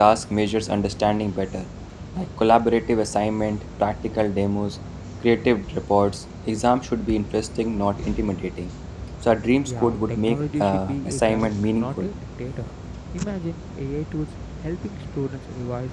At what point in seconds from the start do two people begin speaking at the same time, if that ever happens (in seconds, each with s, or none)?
9.7 s